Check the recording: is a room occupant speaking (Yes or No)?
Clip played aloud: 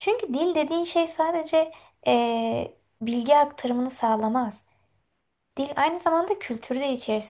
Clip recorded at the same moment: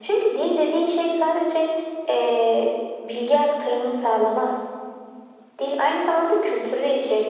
No